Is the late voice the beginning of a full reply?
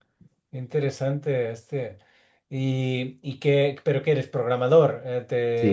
Yes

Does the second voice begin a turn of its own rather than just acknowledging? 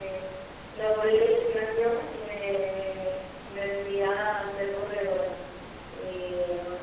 No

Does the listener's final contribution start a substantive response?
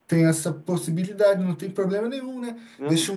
No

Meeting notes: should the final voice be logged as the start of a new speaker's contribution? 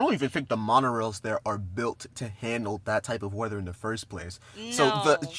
No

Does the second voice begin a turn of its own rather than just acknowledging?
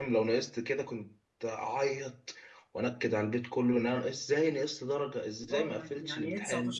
Yes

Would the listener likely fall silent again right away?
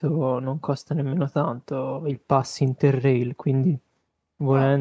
Yes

